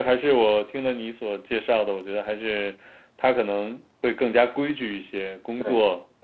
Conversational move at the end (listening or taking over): listening